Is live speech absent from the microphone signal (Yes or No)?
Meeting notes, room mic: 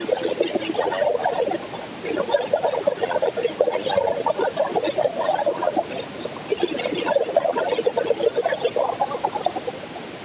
Yes